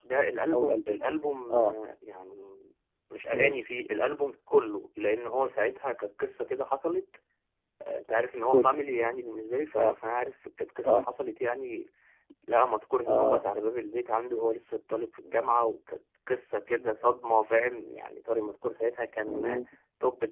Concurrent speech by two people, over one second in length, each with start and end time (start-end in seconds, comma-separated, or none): none